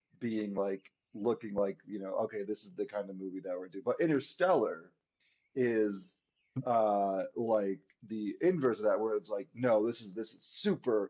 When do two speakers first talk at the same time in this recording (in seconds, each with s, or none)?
none